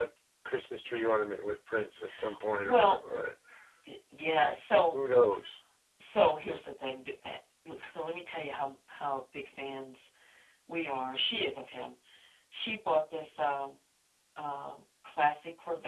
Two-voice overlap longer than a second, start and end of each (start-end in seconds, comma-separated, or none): none